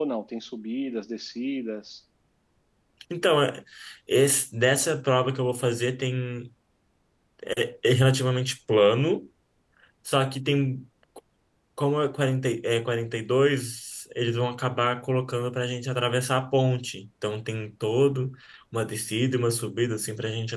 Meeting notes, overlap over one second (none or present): none